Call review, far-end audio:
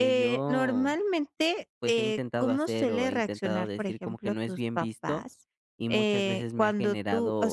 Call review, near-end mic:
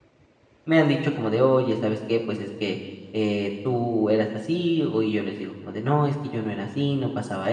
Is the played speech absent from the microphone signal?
Yes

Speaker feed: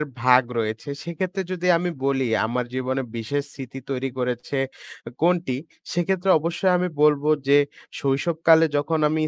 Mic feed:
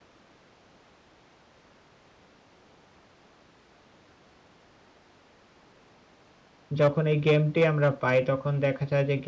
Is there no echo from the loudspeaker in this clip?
Yes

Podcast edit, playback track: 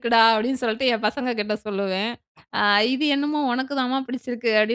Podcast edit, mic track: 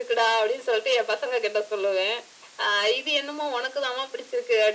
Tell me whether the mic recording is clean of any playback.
No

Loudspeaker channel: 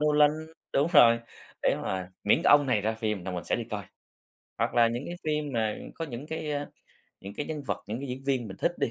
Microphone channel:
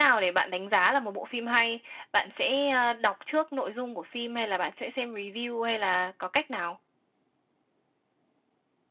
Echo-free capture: Yes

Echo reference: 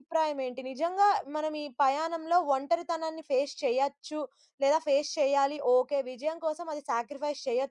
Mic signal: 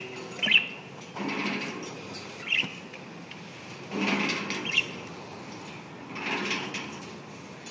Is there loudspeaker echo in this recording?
No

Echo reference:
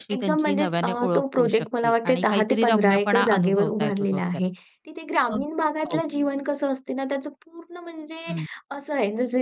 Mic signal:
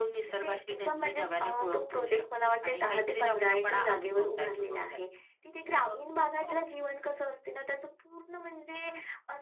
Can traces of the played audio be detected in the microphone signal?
Yes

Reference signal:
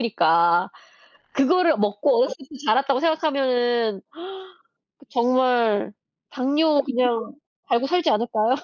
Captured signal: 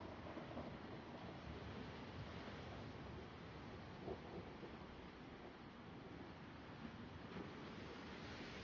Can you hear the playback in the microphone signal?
No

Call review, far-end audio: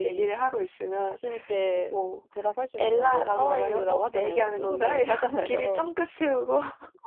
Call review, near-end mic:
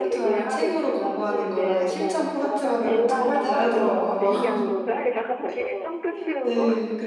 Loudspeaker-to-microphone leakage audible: Yes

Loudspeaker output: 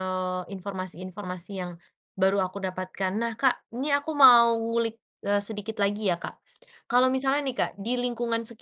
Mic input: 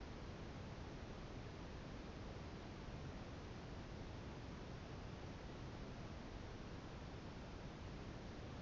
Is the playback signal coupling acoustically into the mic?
No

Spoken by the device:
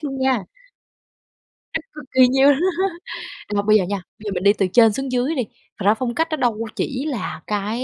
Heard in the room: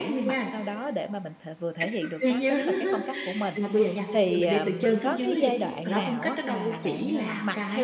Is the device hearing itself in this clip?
Yes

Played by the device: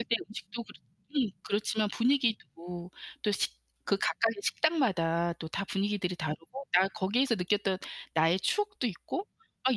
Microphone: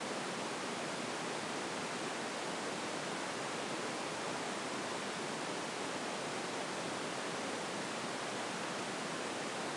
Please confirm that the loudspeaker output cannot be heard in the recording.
Yes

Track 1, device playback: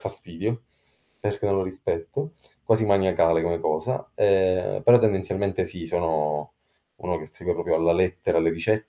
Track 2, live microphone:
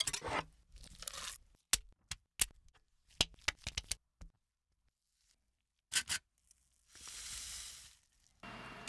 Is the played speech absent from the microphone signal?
Yes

